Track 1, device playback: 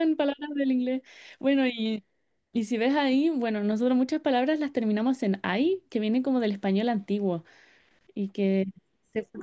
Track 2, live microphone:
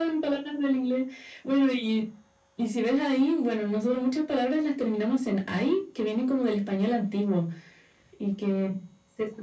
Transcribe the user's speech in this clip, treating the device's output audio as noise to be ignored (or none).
none